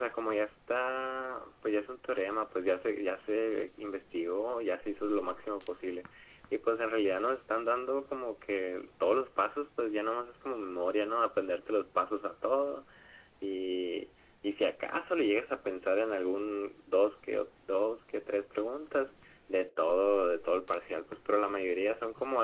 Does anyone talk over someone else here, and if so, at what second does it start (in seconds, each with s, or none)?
none